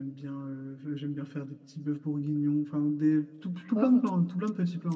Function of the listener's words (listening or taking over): listening